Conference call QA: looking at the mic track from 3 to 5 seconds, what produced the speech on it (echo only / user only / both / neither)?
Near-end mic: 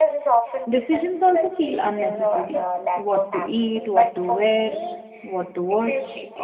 both